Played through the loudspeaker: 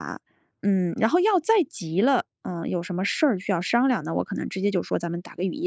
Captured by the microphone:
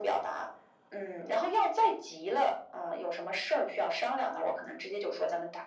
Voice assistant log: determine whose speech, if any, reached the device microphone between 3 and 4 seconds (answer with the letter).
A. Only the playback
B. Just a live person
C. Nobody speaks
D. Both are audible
A